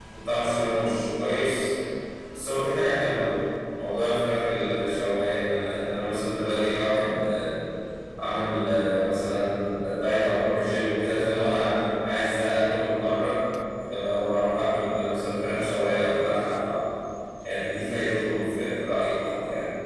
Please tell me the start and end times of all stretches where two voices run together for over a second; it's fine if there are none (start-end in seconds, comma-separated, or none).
none